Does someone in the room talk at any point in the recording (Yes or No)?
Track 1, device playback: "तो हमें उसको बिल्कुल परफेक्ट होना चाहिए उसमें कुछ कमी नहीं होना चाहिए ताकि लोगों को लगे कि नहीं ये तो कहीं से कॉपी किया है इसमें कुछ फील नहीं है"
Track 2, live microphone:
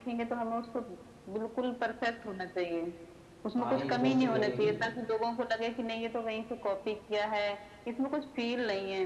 Yes